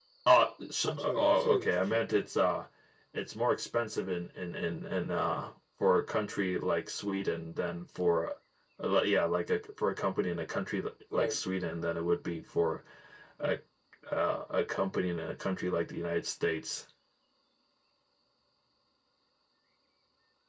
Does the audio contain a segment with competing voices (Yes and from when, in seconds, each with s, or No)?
Yes, from 0.8 s